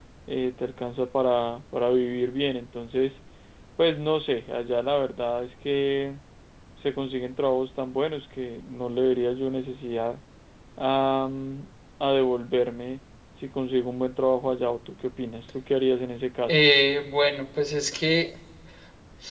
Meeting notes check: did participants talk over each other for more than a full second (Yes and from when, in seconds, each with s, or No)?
No